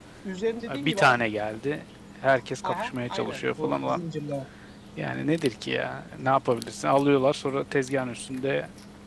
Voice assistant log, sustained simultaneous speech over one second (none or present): present